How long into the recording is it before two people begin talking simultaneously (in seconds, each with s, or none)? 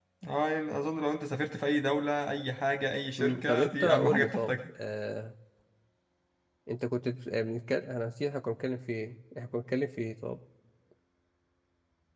3.2 s